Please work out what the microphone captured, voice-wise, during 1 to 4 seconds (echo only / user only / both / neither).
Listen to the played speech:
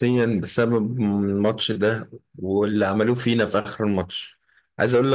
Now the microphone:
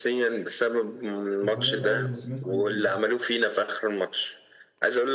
both